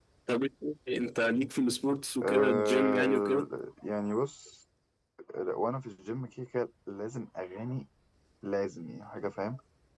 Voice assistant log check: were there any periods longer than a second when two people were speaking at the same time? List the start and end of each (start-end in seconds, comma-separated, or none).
2.2-3.5